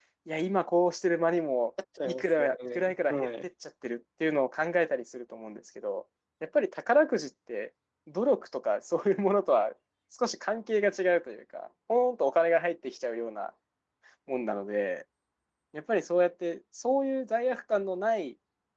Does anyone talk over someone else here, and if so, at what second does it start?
2.0 s

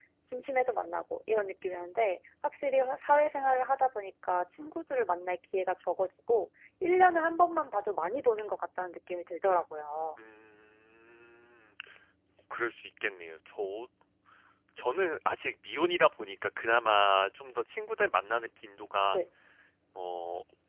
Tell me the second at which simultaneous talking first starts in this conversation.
none

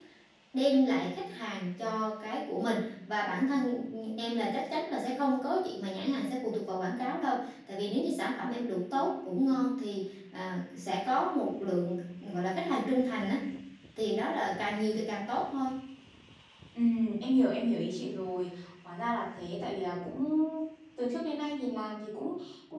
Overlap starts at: none

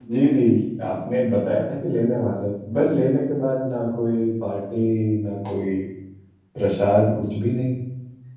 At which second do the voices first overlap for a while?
none

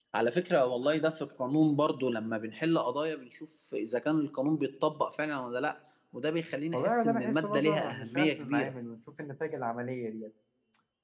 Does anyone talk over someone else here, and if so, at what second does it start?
6.7 s

